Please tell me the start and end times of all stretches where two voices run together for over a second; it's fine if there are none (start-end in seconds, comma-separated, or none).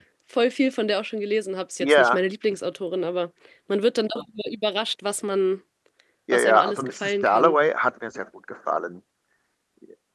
6.3-7.5